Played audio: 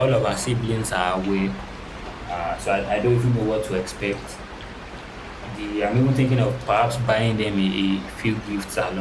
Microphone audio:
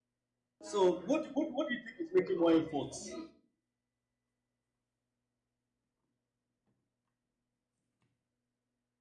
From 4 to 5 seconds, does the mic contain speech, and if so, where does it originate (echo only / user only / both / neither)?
neither